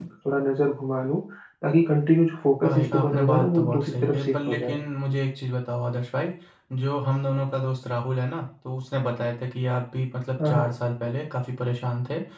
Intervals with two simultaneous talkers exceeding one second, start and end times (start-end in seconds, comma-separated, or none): 2.6-4.8